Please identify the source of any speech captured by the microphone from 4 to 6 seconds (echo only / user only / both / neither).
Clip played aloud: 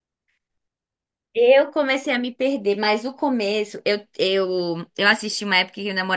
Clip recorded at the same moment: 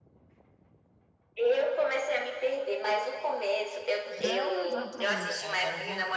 both